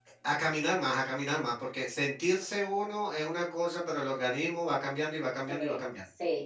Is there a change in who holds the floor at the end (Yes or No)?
Yes